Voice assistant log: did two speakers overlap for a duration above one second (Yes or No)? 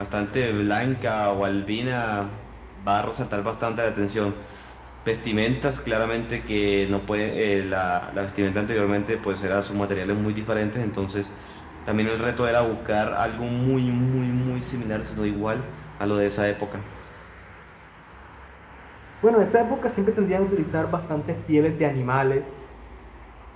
No